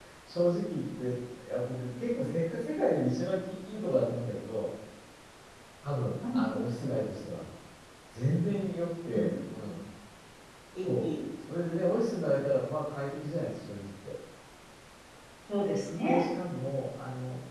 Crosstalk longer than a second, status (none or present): none